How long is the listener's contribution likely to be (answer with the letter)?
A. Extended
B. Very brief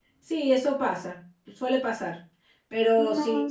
B